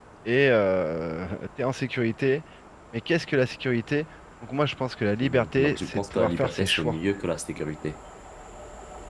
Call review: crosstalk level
present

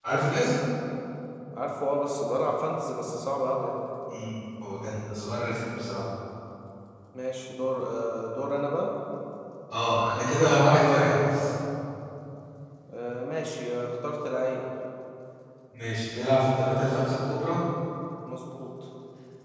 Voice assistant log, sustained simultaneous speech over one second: none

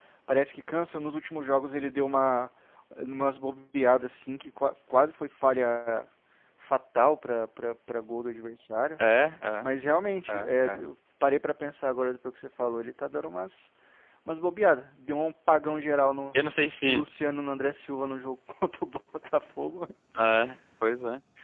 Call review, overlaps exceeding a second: none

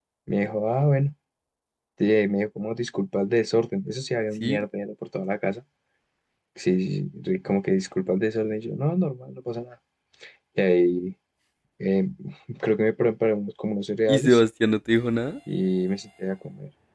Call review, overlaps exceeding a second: none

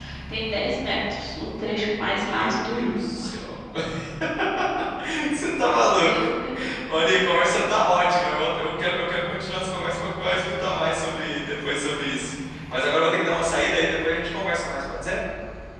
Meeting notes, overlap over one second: present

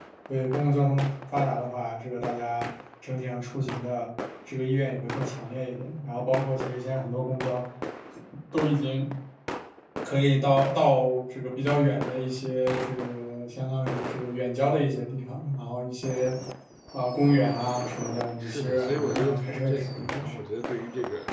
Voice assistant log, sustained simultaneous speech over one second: present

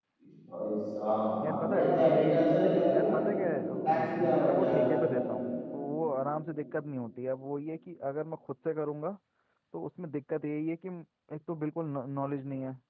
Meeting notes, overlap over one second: present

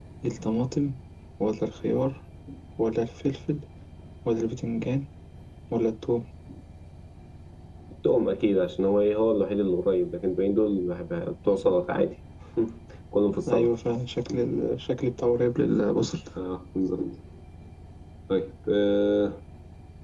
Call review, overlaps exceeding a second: none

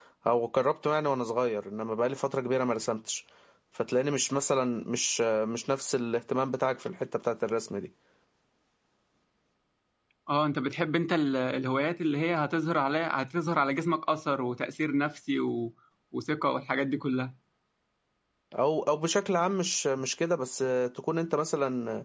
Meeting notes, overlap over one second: none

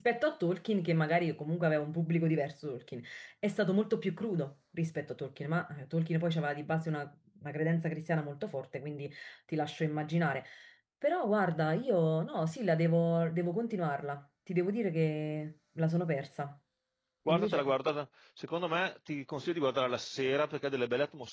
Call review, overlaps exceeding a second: none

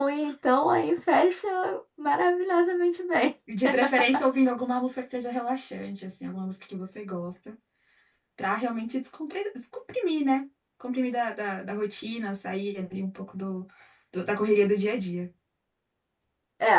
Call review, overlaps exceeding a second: none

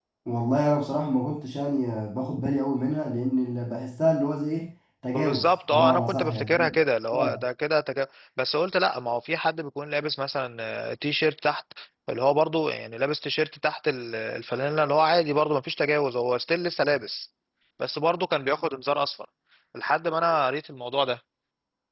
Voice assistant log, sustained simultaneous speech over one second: present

